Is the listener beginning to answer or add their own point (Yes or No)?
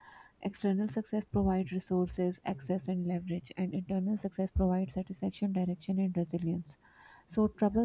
No